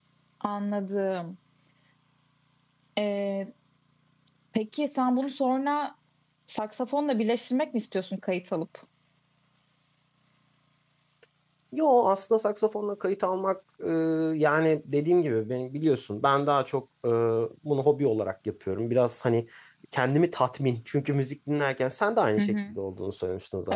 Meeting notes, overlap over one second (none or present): none